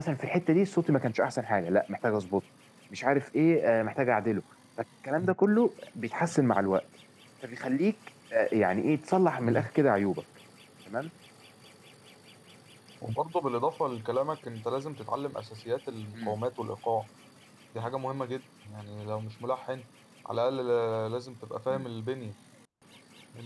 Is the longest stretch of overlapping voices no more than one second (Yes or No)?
Yes